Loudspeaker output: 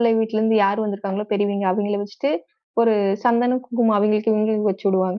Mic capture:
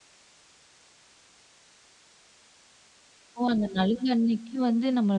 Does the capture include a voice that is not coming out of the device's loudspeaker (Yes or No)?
Yes